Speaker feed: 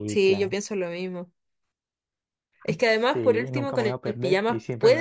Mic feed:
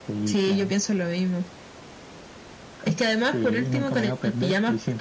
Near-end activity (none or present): none